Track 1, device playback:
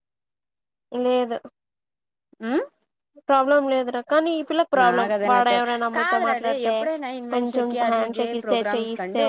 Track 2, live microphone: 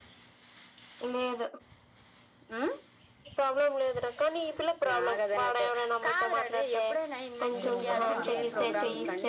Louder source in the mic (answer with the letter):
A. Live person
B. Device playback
B